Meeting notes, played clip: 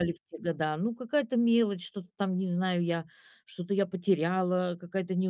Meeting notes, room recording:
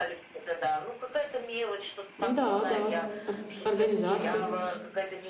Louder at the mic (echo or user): user